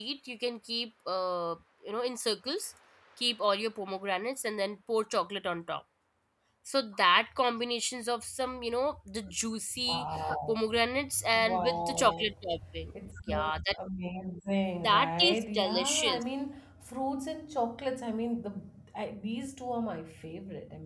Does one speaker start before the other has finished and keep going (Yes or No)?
Yes